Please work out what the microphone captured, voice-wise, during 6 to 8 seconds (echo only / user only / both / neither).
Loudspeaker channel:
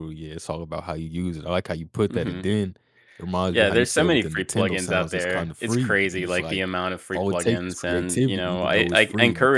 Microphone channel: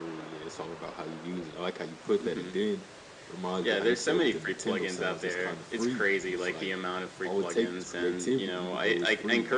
echo only